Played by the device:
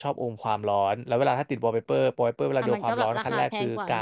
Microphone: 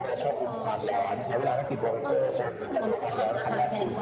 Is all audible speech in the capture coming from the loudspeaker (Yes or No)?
No